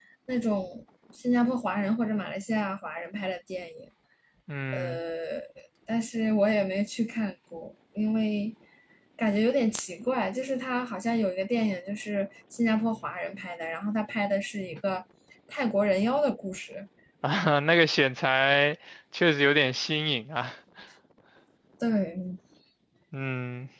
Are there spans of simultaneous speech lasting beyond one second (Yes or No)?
No